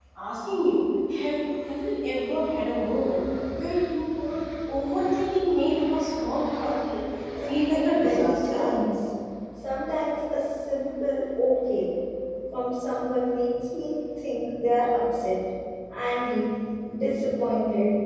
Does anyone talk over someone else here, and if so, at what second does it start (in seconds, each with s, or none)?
7.3 s